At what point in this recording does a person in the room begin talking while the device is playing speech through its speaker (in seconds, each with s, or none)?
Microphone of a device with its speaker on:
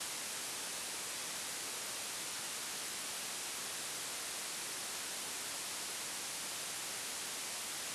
none